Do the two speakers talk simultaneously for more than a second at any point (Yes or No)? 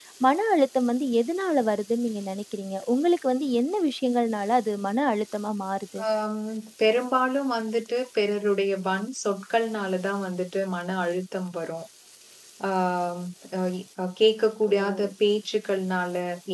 No